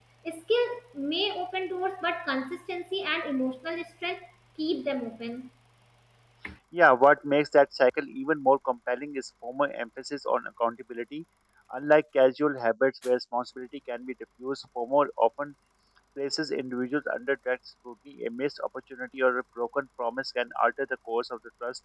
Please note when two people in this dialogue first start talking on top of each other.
none

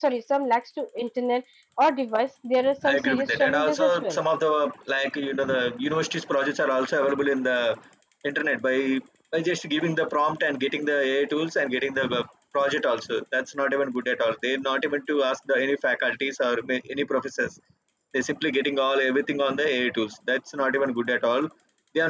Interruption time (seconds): 2.6 s

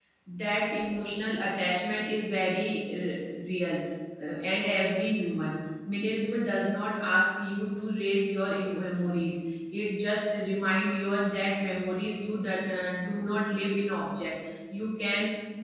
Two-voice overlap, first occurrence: none

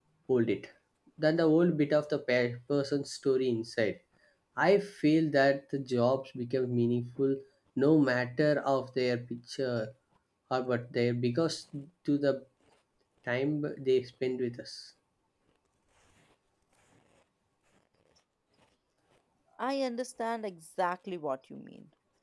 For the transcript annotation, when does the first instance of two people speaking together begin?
none

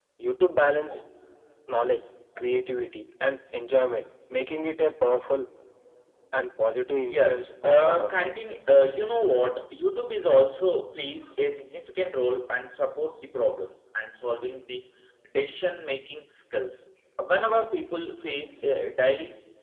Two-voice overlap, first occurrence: 7.1 s

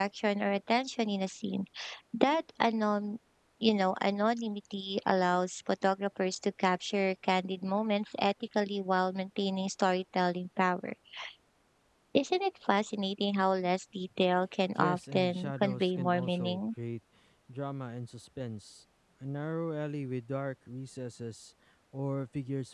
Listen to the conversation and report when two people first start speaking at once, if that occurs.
14.7 s

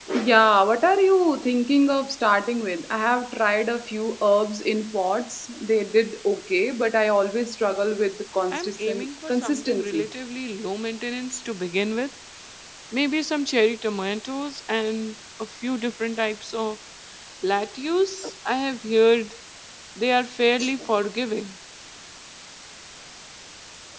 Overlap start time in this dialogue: 8.5 s

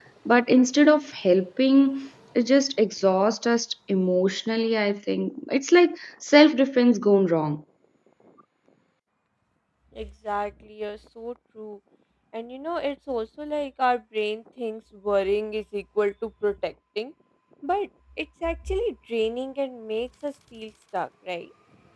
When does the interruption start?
none

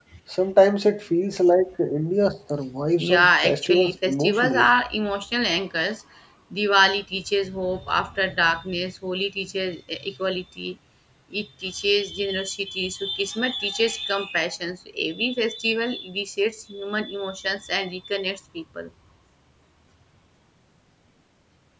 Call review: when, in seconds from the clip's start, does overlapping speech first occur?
3.0 s

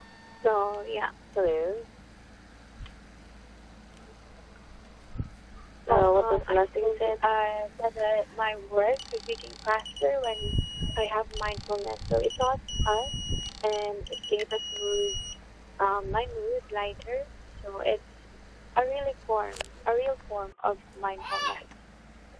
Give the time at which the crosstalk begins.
5.9 s

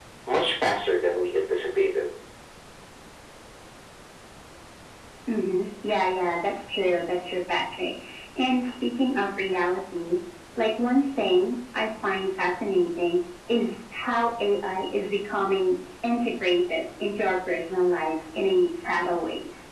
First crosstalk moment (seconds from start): none

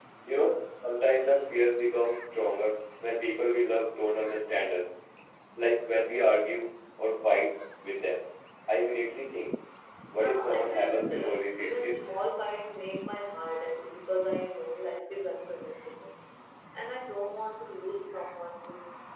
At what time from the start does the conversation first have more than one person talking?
10.2 s

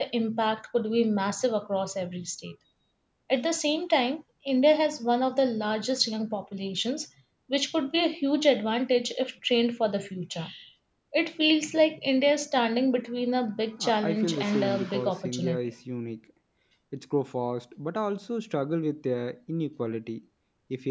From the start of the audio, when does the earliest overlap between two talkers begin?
13.8 s

